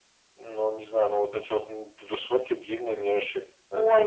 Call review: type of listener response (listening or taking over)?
taking over